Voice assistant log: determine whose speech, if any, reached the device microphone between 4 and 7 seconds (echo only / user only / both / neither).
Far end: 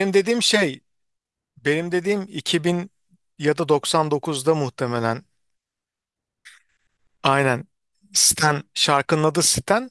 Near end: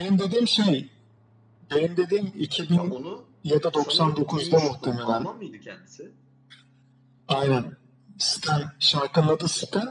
both